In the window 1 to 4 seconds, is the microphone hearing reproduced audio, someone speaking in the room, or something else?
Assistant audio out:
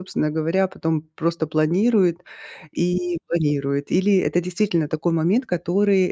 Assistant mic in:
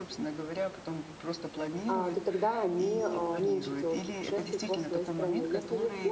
both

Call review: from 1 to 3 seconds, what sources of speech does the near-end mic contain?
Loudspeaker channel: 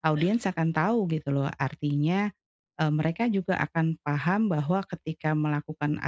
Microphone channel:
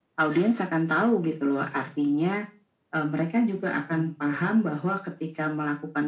echo only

